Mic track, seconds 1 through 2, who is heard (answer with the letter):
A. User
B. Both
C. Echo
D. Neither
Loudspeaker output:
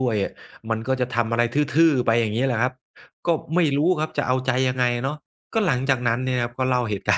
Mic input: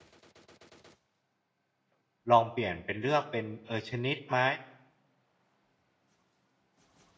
D